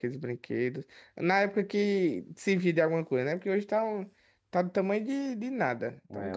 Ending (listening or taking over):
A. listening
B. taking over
B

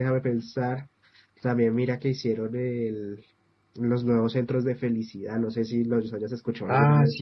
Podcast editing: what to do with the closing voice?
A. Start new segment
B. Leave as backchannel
A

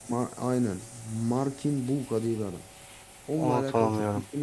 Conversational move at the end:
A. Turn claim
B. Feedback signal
B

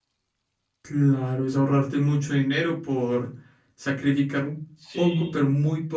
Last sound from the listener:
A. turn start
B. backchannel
B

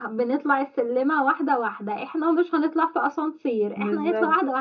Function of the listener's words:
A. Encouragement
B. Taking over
A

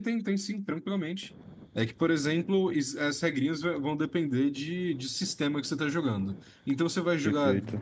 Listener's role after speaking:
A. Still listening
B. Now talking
A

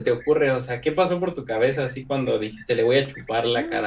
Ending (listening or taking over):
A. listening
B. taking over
B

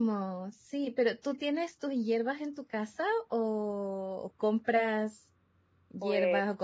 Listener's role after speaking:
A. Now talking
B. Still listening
B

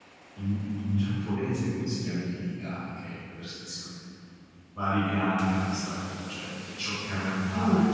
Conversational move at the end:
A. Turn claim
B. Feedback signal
B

